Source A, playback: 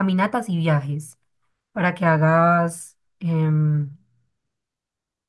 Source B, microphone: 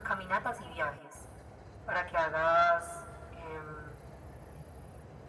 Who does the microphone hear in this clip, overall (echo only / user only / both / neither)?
echo only